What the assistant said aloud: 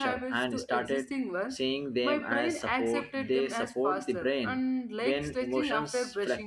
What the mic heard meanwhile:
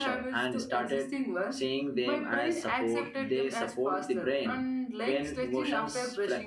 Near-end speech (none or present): none